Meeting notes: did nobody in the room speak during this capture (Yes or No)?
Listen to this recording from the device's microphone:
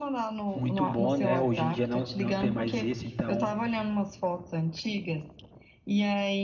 No